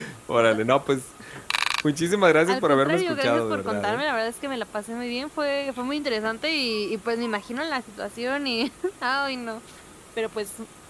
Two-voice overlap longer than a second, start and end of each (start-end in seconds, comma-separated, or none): 2.5-4.0